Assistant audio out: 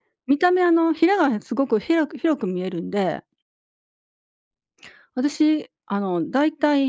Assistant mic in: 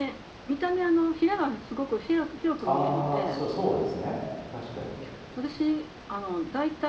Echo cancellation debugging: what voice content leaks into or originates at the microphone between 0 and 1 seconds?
echo only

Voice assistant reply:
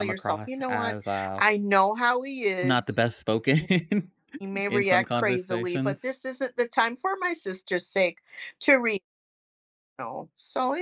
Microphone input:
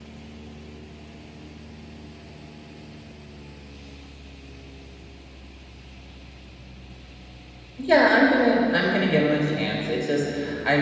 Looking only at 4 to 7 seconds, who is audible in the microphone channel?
neither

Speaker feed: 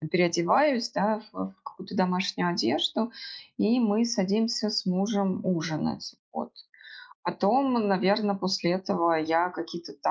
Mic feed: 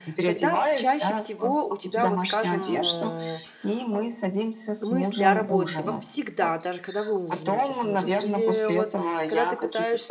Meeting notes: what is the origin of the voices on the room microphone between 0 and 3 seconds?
both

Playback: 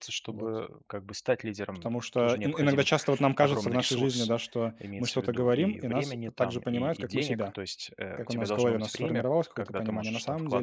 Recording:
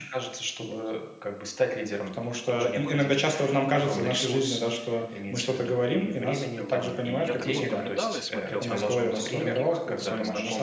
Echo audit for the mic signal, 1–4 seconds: echo only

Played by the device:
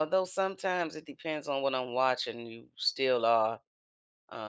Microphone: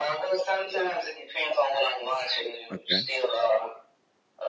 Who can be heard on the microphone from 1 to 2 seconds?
echo only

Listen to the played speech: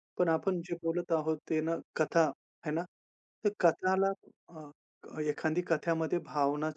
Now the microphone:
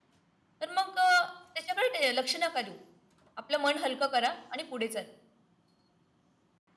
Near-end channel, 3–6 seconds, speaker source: user only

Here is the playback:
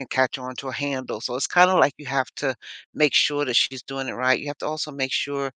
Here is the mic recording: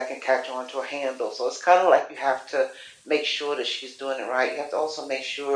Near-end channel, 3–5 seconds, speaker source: echo only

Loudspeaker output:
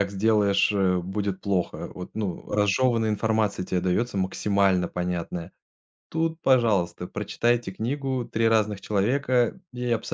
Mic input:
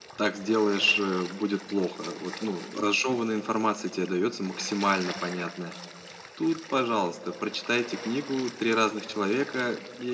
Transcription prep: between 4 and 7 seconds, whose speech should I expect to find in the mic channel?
echo only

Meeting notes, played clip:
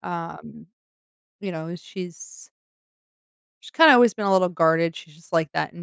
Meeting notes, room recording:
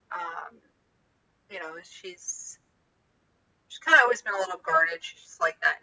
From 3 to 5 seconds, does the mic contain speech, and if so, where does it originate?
echo only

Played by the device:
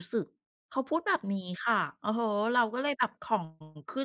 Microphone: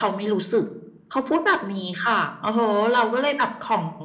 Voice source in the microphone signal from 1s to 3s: echo only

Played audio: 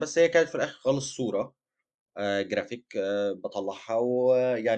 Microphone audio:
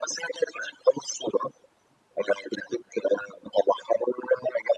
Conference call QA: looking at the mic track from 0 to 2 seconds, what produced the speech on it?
echo only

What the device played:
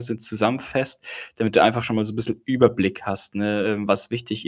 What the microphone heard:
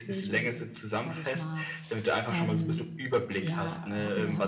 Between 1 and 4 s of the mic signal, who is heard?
both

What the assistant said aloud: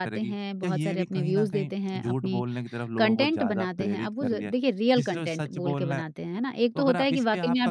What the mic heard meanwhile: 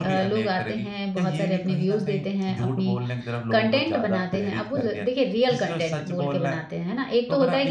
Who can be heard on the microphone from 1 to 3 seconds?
echo only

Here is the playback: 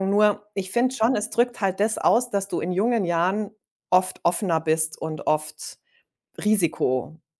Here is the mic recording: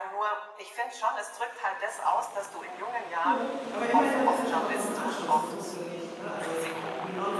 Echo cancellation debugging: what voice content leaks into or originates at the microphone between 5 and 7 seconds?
both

